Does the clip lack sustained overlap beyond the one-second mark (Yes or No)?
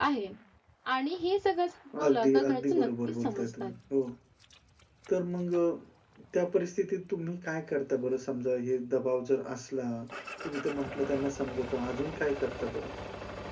No